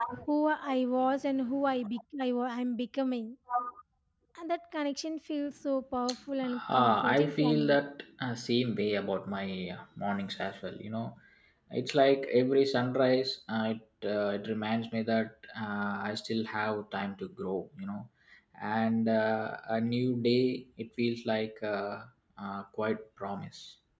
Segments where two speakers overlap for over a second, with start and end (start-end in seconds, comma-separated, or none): 6.4-7.8